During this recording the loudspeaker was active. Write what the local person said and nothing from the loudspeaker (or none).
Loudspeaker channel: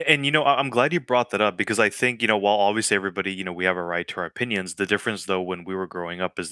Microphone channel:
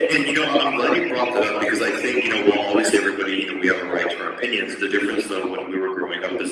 none